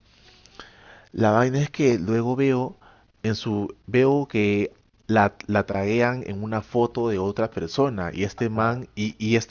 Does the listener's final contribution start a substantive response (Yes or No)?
No